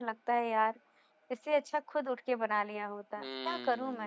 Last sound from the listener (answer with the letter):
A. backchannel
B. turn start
B